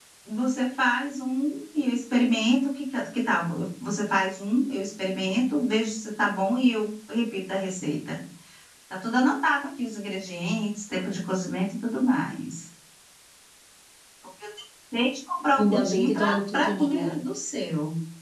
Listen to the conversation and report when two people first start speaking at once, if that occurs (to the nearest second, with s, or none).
16 s